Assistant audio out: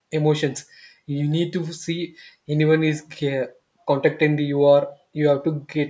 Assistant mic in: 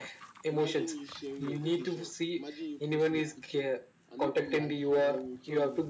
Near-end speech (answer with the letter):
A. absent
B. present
B